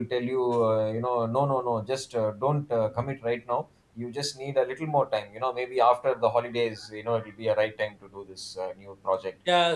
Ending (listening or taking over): taking over